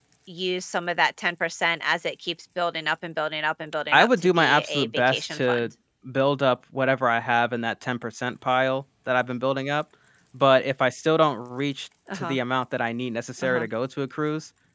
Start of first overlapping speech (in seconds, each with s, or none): 3.9 s